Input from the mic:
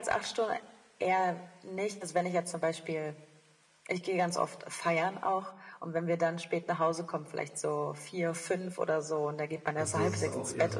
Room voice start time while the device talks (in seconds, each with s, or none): 9.7 s